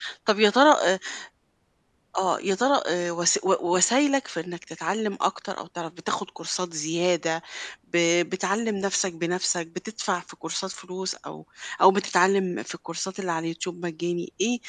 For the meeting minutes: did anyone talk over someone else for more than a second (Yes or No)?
No